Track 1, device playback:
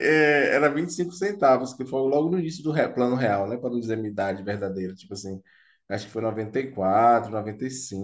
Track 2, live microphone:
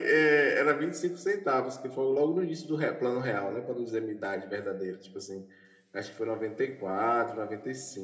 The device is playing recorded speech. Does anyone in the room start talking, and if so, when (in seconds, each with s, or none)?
none